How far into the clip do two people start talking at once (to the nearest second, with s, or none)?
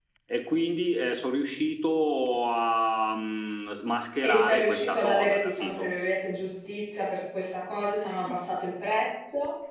4 s